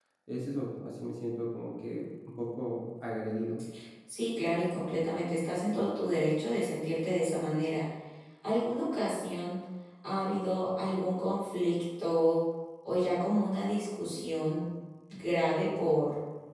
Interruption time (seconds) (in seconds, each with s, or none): none